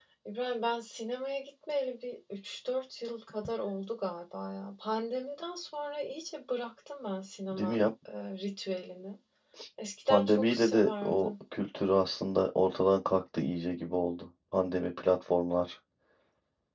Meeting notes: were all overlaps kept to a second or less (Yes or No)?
No